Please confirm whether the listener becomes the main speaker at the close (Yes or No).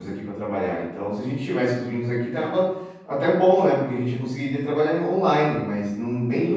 Yes